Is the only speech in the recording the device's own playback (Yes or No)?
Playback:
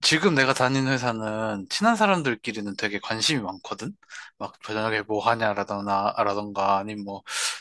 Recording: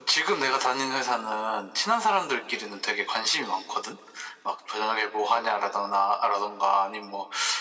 Yes